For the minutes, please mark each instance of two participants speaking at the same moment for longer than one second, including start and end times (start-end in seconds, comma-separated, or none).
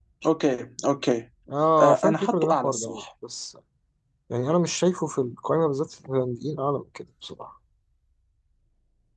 1.8-3.0